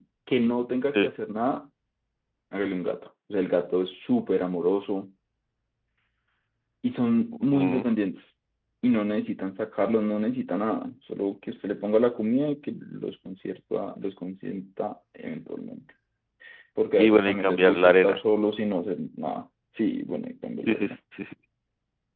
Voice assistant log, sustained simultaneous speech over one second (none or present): present